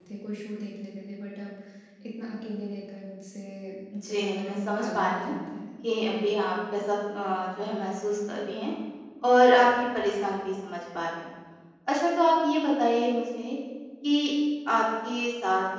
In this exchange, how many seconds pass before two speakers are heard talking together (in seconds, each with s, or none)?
4.1 s